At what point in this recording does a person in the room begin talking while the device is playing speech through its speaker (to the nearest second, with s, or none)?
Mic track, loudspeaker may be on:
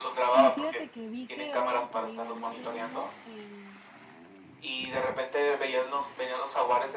0 s